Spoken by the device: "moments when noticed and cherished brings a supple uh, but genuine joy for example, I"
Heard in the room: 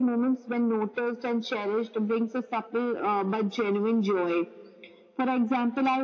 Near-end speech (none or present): none